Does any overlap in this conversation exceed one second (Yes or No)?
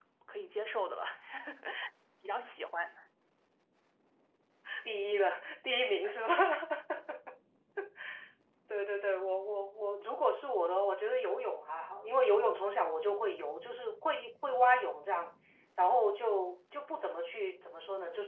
No